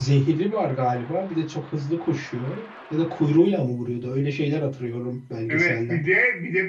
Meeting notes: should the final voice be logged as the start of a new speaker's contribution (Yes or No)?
Yes